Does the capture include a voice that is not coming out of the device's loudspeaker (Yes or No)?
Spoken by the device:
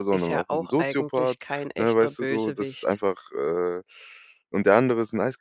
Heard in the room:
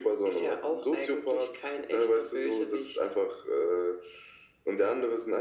No